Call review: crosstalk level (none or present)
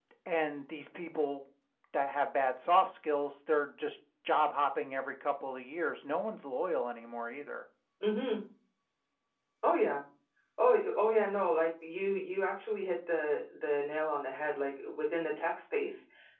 none